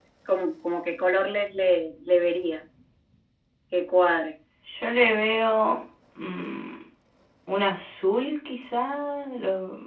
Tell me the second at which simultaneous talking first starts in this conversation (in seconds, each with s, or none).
none